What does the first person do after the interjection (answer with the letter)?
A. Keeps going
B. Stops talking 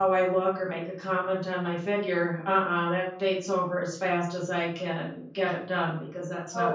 B